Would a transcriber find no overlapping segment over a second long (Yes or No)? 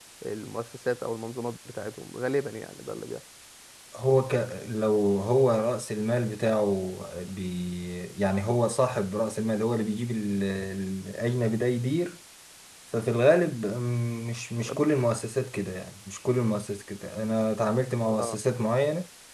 Yes